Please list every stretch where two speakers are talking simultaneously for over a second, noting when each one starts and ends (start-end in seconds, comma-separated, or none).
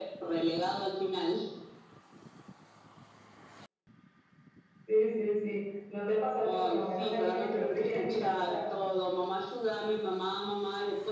6.4-8.6